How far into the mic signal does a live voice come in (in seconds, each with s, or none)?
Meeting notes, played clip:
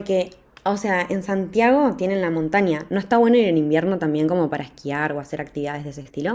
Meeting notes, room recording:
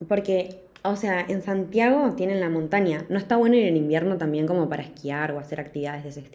none